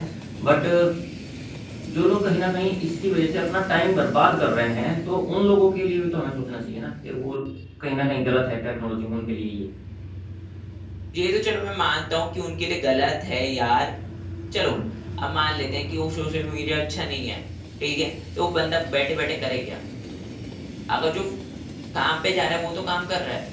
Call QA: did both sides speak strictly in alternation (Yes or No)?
Yes